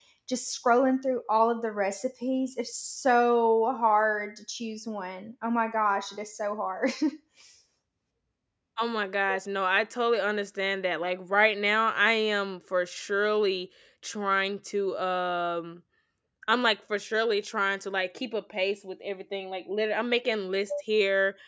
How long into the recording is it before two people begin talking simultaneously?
none

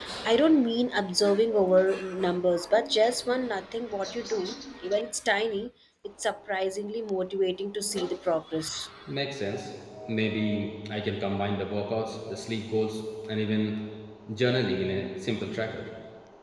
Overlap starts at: none

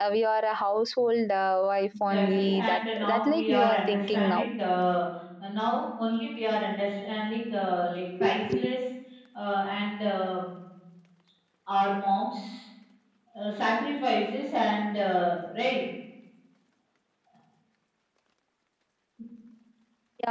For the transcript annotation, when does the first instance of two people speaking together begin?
2.1 s

